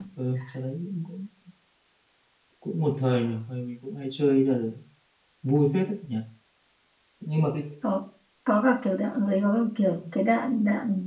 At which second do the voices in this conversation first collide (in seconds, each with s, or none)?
none